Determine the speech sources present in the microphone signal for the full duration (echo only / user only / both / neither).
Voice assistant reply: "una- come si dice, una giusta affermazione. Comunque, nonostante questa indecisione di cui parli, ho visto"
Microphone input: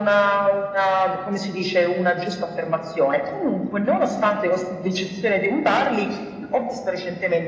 echo only